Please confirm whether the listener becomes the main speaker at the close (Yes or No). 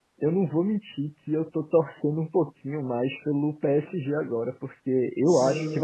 No